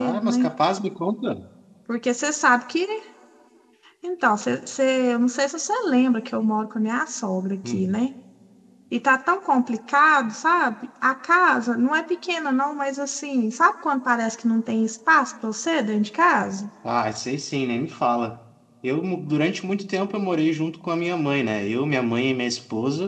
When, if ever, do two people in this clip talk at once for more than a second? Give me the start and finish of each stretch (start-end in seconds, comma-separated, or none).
none